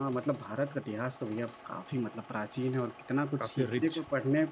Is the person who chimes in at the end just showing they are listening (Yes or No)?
Yes